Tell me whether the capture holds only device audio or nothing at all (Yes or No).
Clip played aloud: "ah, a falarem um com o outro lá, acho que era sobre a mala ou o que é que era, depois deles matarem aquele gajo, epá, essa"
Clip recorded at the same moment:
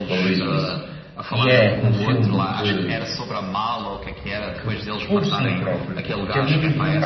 No